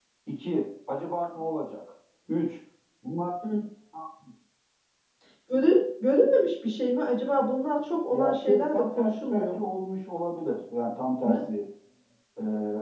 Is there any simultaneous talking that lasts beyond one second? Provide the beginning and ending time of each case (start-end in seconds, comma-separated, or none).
8.1-9.7